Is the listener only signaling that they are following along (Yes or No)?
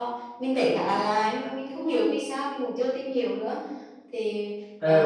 No